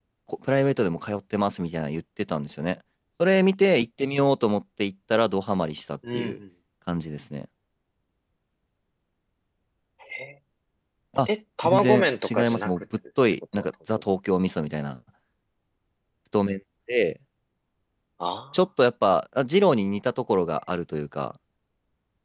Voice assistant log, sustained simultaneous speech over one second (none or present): present